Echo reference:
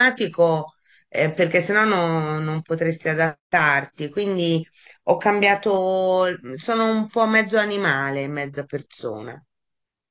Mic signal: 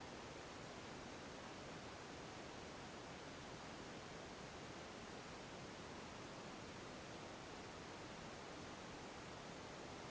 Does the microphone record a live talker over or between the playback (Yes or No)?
No